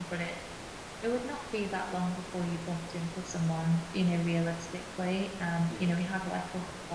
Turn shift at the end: No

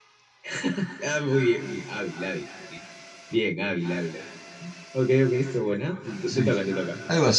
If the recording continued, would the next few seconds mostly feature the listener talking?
Yes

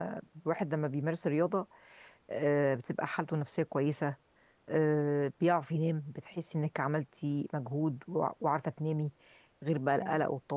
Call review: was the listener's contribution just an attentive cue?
Yes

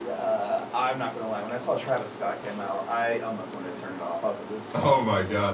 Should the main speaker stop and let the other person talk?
Yes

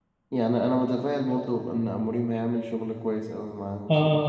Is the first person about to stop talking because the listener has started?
Yes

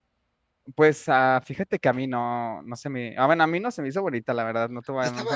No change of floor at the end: No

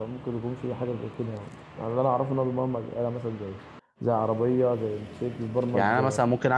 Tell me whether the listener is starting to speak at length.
Yes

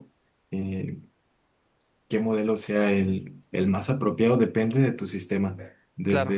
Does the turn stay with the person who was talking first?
Yes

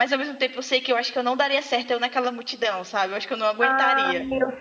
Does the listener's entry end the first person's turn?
Yes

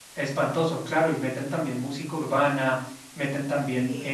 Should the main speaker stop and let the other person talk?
No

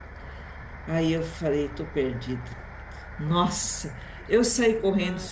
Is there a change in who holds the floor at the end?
No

